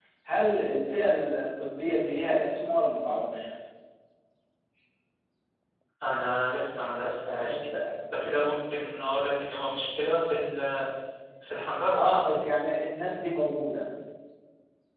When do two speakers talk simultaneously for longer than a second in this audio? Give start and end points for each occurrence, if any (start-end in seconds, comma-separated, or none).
none